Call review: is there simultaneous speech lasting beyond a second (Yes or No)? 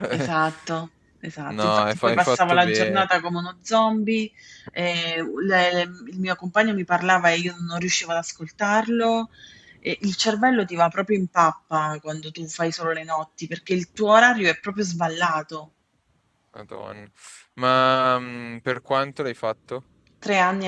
Yes